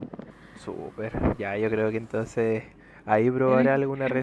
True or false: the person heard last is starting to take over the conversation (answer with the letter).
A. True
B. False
B